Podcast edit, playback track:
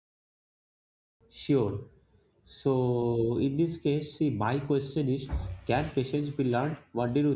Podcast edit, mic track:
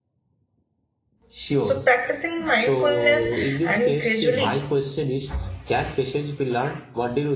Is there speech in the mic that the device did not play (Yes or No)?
Yes